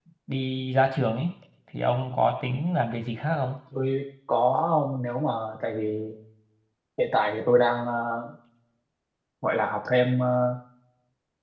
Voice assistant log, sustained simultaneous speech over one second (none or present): none